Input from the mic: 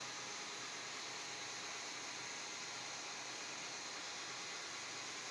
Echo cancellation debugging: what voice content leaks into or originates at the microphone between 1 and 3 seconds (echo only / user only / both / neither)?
neither